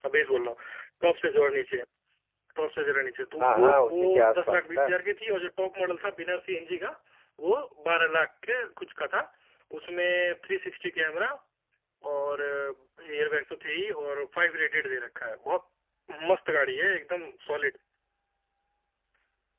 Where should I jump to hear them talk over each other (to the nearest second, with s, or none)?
3 s